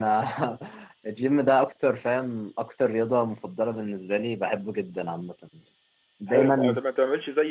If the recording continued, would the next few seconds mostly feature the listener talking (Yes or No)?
Yes